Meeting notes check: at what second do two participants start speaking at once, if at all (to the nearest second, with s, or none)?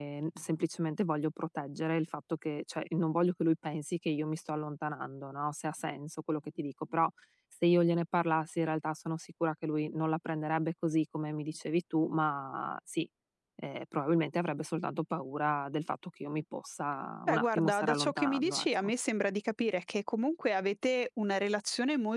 17 s